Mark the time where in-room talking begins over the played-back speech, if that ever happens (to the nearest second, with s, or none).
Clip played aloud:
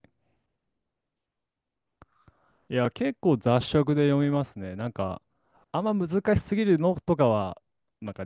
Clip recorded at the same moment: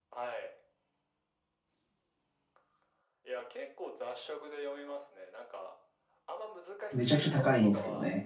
7 s